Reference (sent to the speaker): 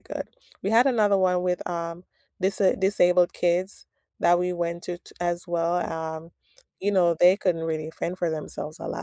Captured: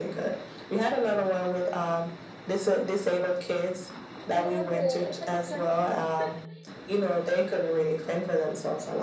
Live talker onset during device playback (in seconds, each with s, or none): 4.3 s